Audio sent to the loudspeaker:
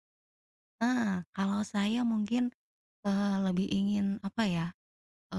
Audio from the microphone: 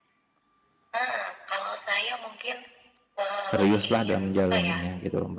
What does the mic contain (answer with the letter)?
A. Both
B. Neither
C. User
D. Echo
A